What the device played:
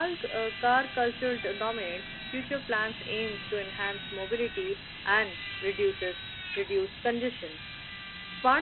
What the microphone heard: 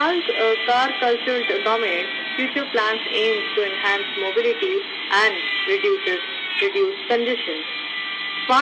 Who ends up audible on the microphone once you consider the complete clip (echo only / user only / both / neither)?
echo only